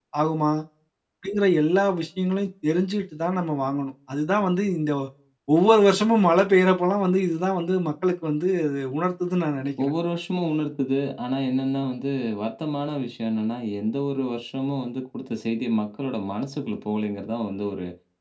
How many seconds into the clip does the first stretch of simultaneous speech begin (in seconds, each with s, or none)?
none